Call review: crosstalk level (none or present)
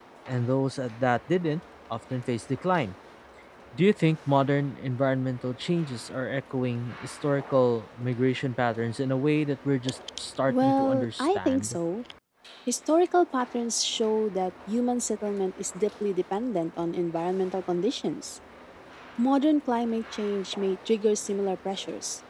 present